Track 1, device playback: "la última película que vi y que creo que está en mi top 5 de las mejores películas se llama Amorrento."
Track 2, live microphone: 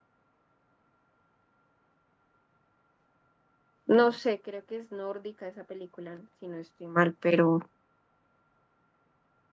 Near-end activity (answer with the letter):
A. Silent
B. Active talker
B